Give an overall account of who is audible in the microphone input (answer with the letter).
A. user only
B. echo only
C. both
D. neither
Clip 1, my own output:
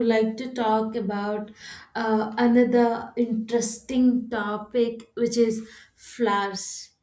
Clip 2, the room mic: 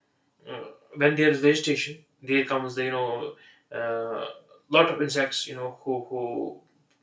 A